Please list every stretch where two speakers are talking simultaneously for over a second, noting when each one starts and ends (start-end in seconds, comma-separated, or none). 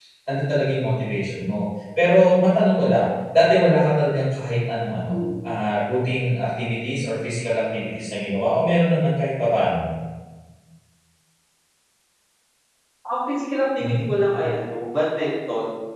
none